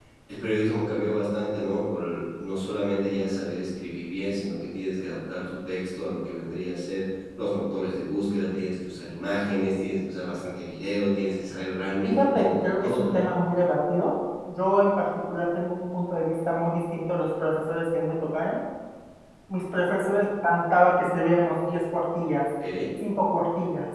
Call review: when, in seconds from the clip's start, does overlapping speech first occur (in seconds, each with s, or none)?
12.0 s